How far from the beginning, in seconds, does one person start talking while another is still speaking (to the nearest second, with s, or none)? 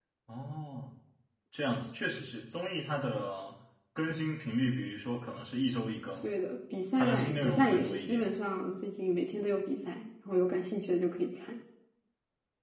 7 s